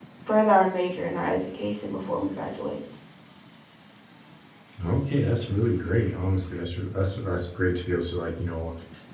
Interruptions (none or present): none